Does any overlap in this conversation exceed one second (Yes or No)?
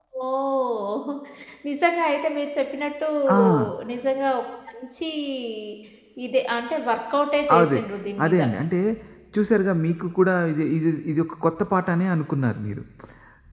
No